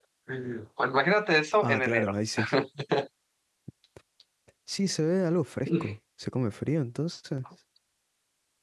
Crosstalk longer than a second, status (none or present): none